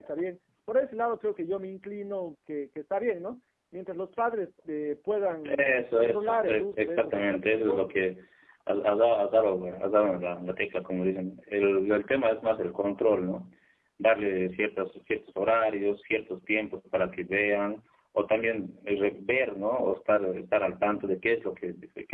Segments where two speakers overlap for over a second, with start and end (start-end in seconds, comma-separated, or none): 5.6-7.9